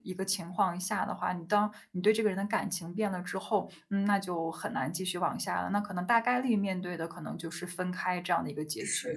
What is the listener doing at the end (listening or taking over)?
taking over